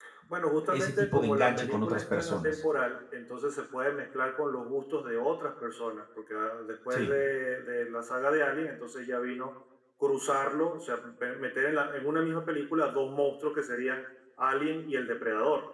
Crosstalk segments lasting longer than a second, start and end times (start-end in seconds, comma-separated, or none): 0.7-2.6